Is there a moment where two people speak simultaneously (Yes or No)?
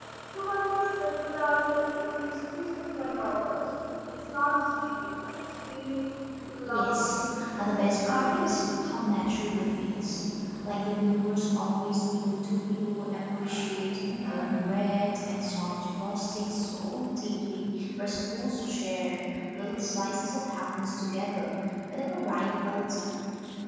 Yes